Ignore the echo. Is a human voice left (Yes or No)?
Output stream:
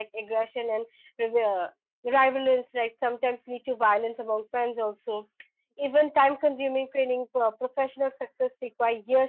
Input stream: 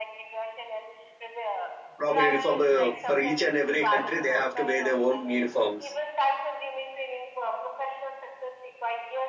Yes